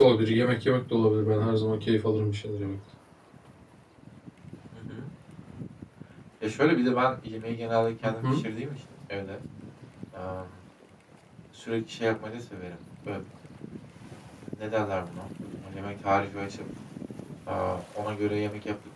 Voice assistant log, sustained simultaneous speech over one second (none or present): none